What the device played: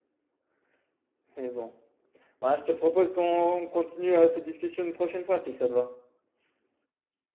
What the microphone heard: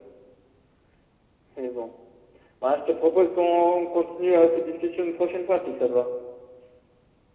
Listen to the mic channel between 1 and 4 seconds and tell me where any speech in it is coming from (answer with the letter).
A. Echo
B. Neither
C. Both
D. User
A